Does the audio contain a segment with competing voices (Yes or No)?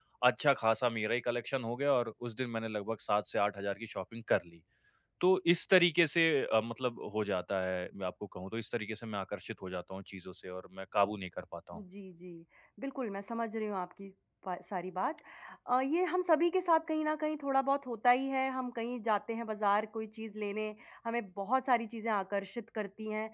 No